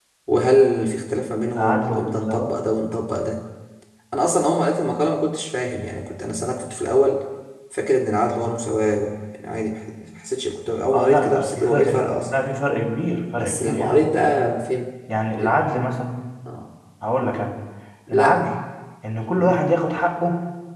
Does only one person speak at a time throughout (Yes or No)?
No